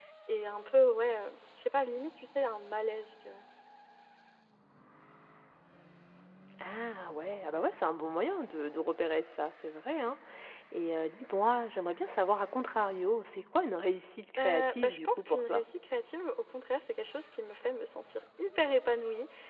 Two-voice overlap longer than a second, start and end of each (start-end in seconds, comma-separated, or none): 14.4-15.6